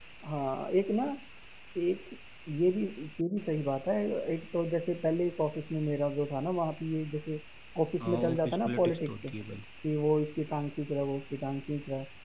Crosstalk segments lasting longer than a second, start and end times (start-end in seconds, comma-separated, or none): 8.0-9.2